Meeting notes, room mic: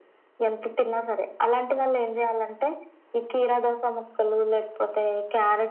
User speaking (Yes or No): No